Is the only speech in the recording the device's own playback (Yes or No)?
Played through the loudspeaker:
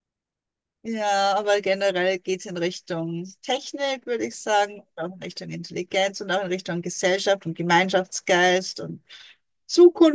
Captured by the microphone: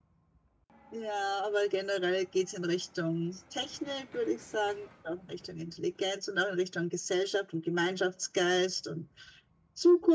Yes